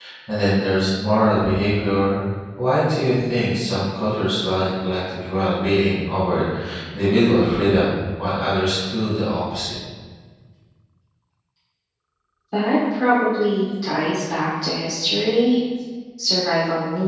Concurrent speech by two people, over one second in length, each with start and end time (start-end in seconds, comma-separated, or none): none